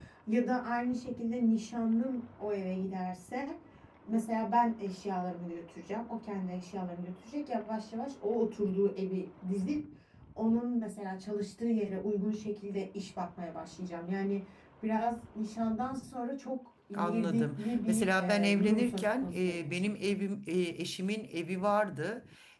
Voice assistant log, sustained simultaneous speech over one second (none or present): present